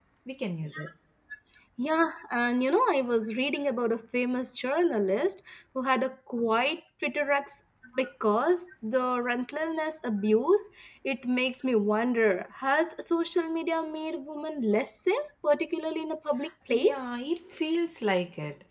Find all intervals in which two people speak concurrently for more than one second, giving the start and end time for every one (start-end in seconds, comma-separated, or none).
none